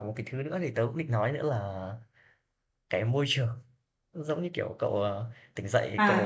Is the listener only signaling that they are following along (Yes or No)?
No